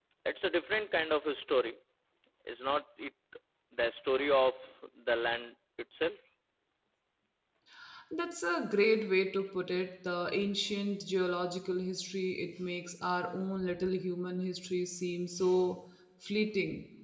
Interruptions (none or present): none